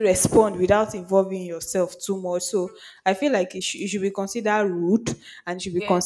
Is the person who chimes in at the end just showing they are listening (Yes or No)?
Yes